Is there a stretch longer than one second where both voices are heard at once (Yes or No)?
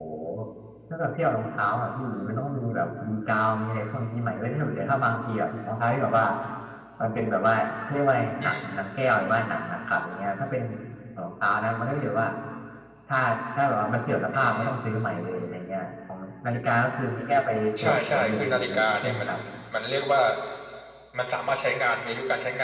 Yes